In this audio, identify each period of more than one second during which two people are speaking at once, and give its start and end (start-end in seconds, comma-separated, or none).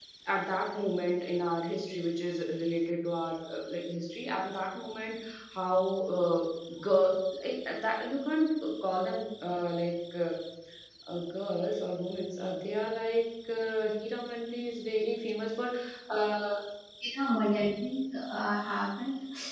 none